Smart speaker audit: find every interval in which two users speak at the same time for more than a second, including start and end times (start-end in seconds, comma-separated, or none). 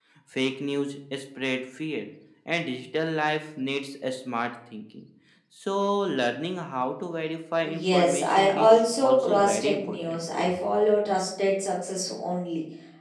7.6-10.2